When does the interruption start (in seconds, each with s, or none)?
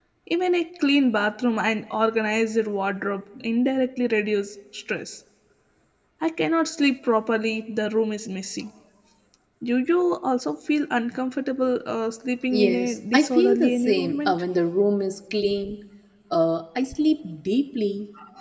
12.5 s